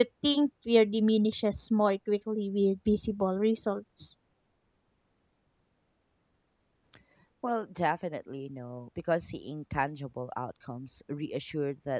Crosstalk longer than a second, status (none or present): none